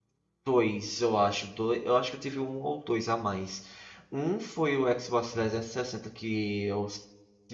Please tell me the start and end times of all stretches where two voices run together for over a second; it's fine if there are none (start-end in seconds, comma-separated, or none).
none